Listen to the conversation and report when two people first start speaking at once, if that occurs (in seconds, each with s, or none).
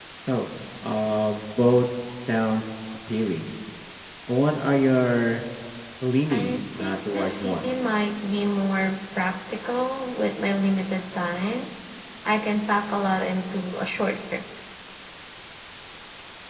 6.3 s